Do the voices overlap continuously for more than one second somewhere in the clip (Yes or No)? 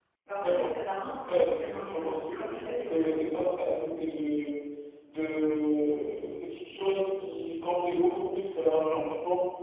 Yes